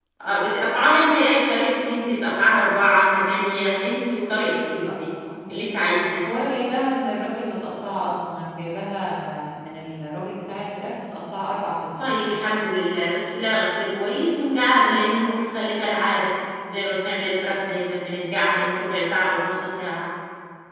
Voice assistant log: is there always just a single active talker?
Yes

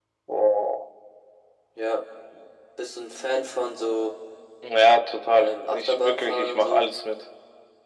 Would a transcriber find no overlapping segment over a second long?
No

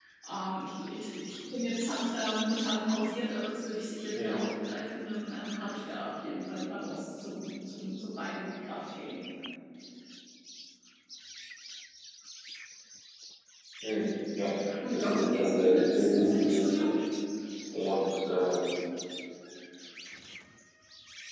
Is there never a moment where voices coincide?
No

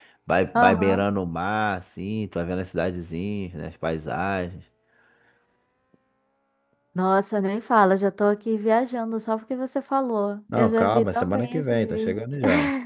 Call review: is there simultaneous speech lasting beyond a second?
Yes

